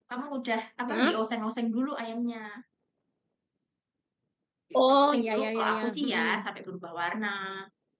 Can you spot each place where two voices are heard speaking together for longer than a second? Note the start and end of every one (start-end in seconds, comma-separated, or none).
4.8-6.5